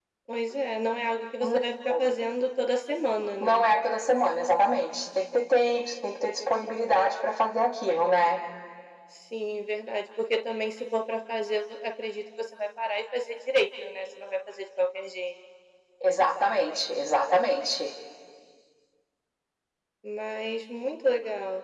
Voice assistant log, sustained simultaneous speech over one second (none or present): none